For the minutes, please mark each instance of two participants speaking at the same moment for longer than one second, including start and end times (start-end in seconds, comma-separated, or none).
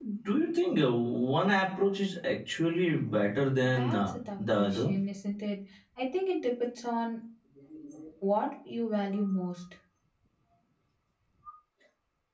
3.6-4.9